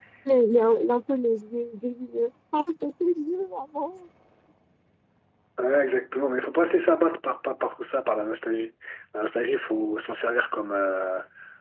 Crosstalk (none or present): none